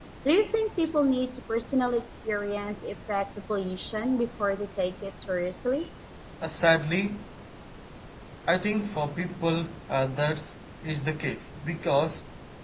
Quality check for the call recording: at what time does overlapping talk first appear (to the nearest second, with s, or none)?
none